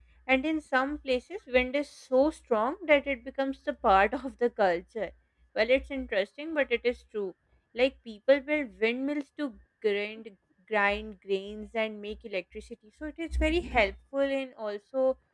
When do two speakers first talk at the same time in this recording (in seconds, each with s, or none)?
none